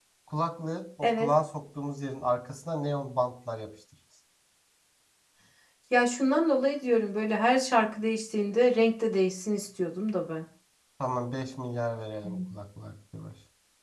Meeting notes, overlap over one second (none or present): none